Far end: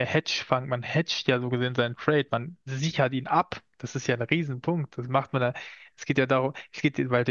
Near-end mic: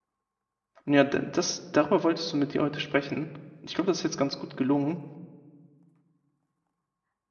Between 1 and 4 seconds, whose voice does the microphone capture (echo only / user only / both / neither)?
user only